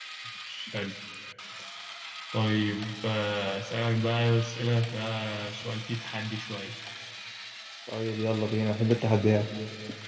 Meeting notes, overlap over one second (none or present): none